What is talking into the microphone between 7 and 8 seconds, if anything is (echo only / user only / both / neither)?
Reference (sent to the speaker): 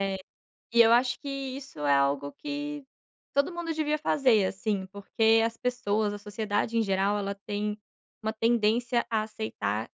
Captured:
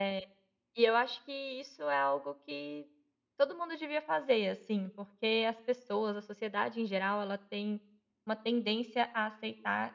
echo only